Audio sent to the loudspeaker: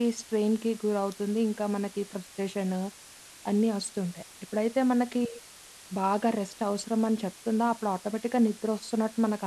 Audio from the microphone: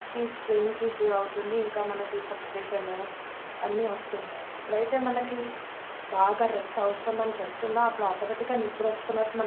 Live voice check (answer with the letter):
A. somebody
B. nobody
B